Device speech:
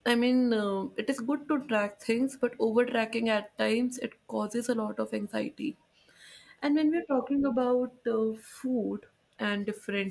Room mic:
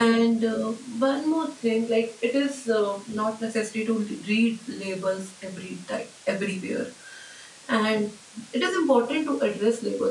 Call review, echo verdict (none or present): none